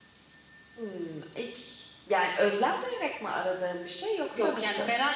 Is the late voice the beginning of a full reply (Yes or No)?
Yes